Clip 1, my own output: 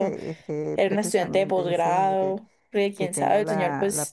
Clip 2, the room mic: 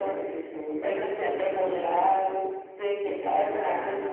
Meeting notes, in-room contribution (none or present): none